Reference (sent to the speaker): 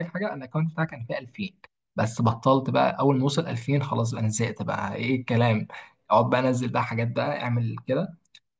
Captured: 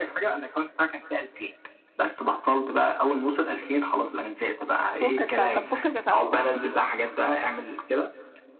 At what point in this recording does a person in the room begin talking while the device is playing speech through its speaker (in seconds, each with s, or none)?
5.0 s